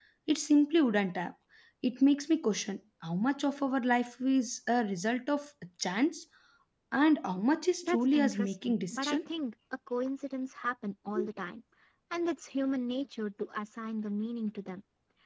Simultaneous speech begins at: 7.8 s

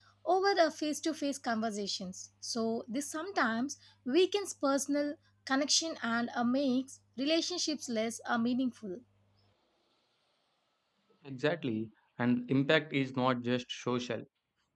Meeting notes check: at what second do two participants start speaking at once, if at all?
none

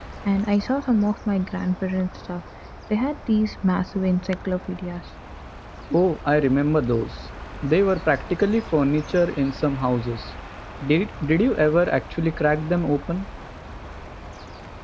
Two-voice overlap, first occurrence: none

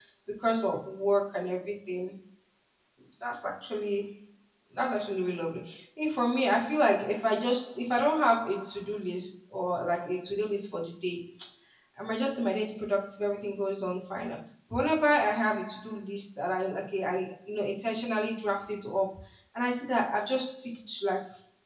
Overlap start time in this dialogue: none

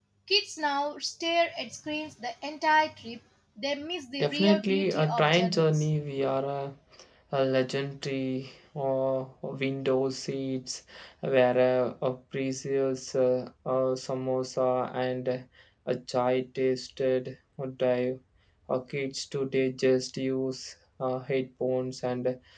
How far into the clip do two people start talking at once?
4.2 s

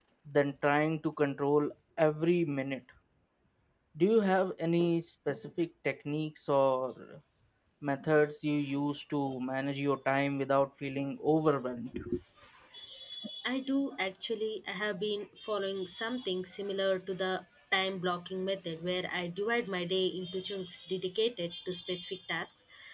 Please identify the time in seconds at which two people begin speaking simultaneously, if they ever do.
none

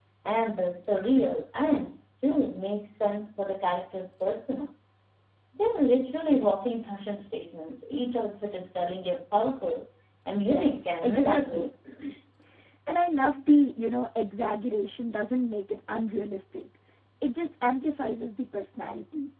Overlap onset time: 10.4 s

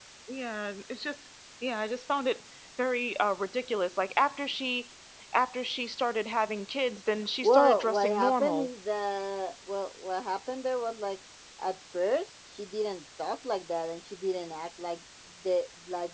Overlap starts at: 7.4 s

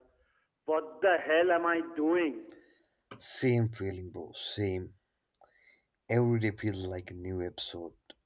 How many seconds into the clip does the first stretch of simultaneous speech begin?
none

